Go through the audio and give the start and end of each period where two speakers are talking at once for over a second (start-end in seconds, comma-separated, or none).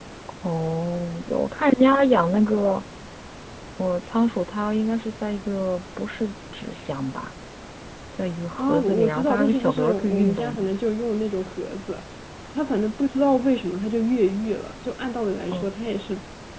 8.6-10.7